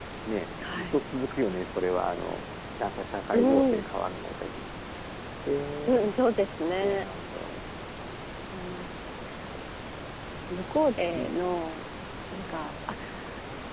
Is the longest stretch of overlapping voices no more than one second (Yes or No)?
Yes